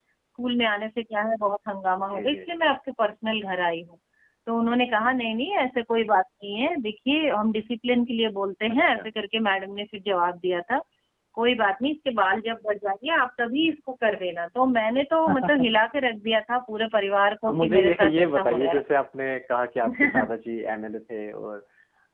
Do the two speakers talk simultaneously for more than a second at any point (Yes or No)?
Yes